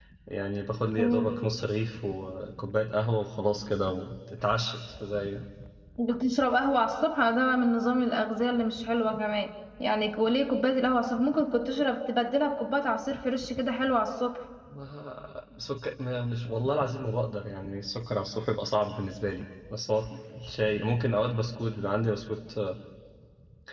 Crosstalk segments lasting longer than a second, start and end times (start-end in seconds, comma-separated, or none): none